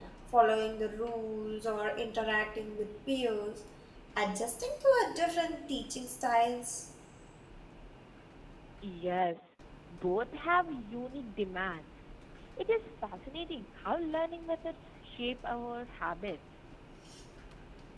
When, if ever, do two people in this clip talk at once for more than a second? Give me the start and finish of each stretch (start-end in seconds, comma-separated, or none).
none